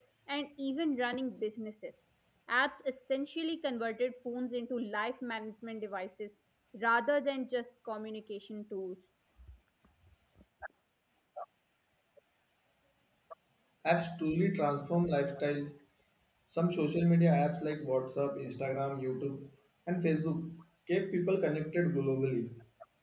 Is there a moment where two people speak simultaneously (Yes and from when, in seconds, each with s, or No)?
No